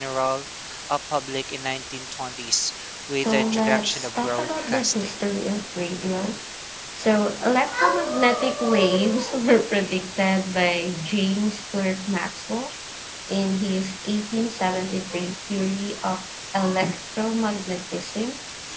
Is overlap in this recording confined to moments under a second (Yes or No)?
No